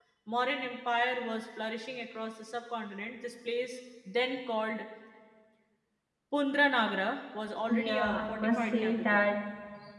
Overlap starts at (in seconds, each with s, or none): 7.7 s